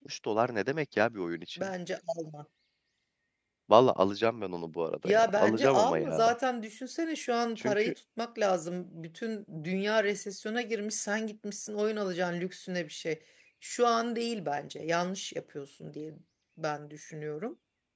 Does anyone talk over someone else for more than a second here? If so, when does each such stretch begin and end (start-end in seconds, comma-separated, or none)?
5.0-6.3